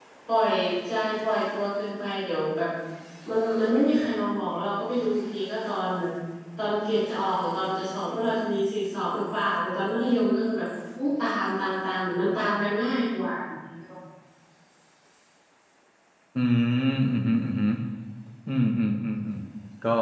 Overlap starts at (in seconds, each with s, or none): none